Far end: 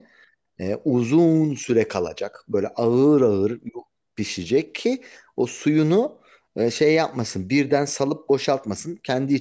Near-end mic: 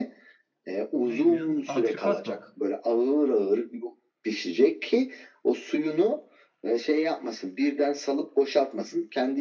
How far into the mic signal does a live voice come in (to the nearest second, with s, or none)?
1 s